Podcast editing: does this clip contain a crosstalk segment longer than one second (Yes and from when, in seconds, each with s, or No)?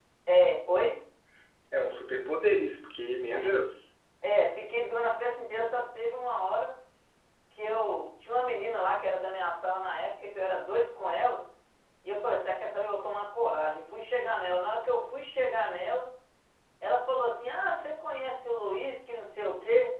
No